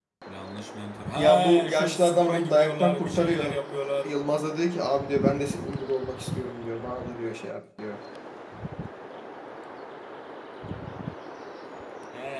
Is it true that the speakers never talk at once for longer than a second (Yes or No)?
No